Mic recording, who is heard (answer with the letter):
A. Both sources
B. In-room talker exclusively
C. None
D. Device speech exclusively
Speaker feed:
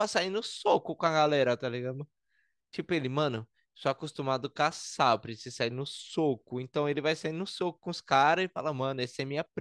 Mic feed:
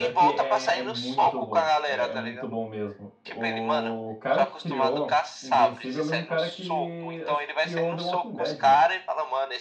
A